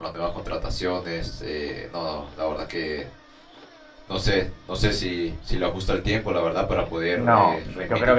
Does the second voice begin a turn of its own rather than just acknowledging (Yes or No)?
Yes